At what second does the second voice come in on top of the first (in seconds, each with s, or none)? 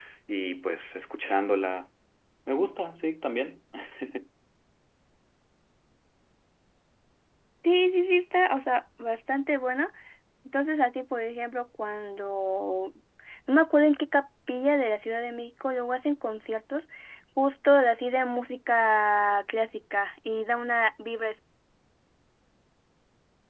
none